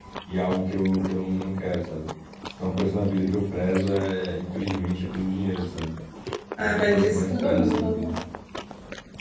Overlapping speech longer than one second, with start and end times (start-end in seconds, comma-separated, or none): 6.6-8.1